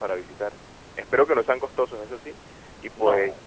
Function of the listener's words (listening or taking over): listening